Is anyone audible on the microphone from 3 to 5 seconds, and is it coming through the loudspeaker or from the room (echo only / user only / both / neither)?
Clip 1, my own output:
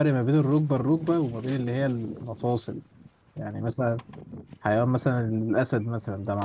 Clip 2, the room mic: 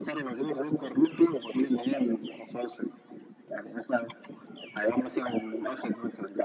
echo only